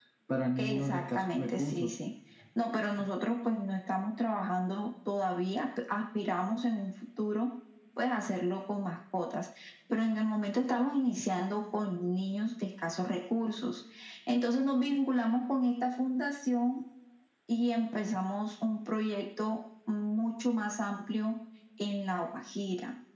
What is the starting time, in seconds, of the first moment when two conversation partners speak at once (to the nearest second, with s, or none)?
1 s